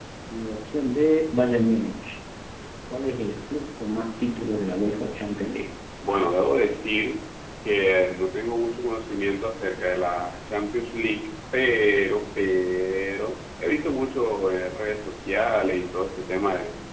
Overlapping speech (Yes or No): No